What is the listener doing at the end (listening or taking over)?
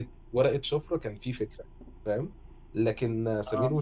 listening